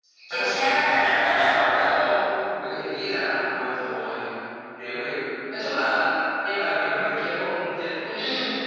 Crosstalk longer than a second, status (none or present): present